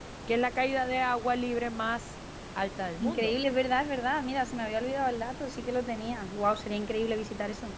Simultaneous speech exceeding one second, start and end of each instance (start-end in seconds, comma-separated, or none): none